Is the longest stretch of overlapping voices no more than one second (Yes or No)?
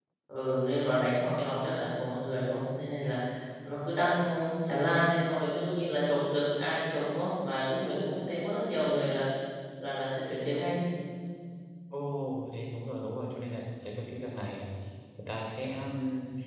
Yes